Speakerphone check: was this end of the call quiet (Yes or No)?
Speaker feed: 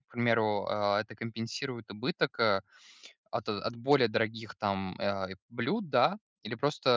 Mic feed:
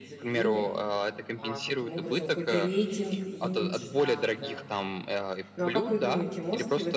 No